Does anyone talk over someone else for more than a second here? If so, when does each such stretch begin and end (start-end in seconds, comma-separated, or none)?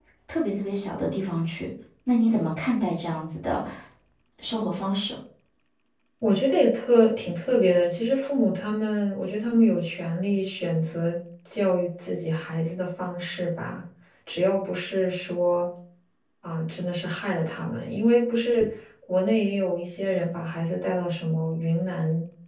none